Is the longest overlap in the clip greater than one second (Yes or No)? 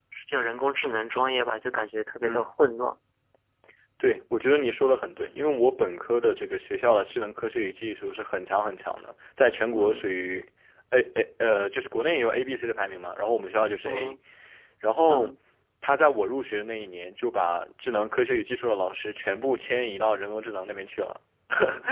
No